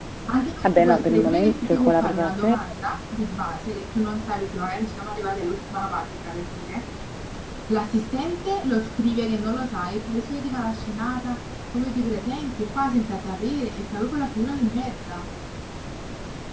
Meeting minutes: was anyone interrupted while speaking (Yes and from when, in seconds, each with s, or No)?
Yes, from 0.6 s